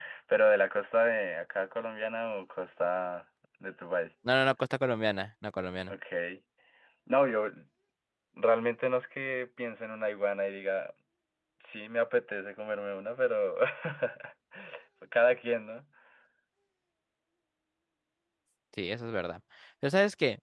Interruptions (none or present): none